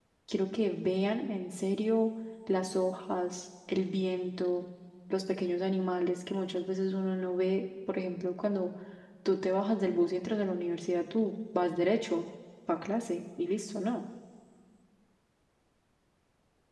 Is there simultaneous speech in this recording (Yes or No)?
No